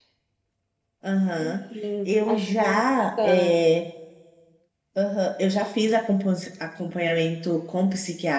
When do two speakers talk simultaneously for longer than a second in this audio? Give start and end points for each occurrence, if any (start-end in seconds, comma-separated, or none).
2.0-3.5